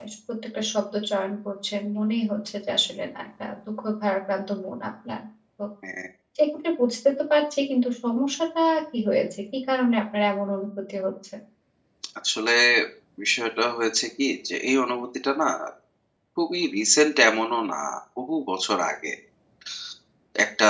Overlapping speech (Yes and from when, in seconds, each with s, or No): No